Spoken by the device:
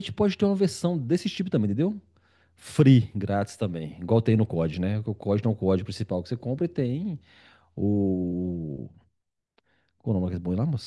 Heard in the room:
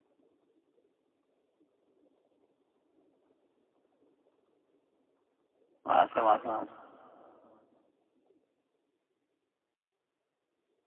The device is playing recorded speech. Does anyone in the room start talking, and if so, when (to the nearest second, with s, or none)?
6 s